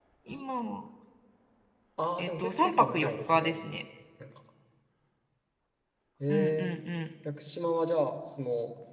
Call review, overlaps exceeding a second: present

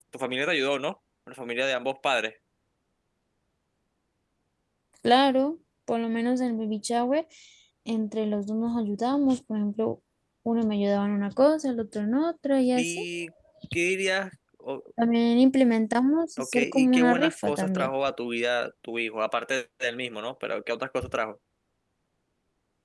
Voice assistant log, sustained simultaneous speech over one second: present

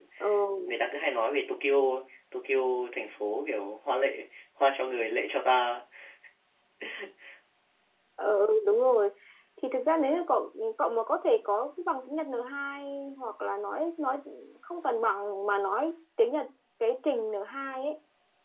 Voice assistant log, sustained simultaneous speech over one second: none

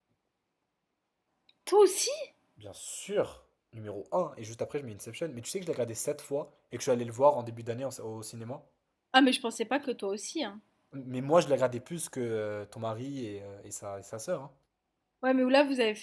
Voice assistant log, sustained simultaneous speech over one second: none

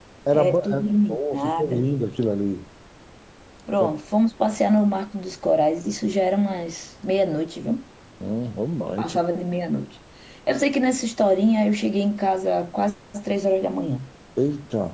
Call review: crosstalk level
present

